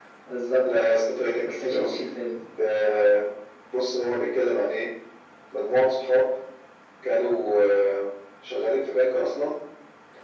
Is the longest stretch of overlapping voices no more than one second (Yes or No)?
Yes